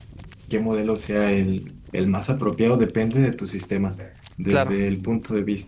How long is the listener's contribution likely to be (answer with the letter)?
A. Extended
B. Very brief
B